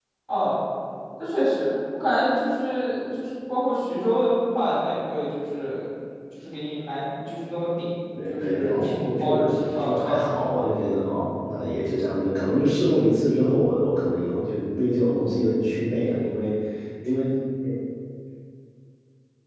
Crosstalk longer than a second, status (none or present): present